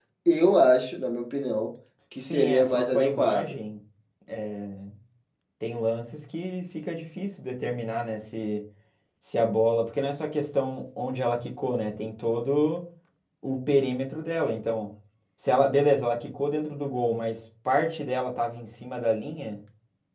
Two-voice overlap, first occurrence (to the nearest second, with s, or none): 2 s